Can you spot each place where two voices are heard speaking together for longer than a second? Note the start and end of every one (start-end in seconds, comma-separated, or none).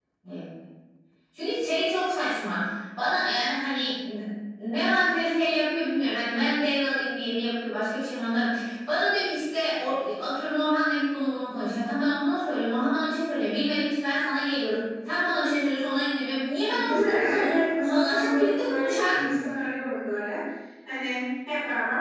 16.7-19.1